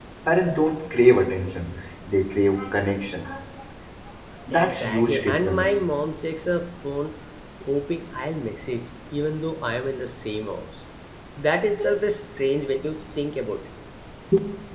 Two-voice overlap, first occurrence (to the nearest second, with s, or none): 5 s